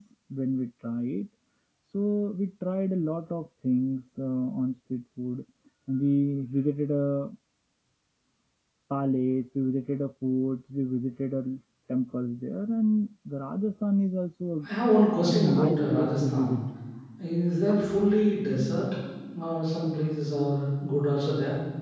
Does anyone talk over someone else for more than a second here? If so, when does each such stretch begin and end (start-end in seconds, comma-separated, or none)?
15.3-16.6